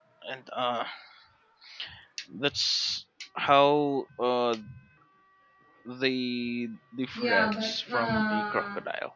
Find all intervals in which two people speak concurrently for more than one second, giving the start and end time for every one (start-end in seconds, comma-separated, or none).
7.1-8.7